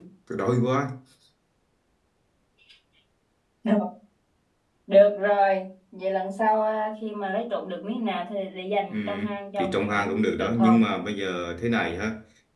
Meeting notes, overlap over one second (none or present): present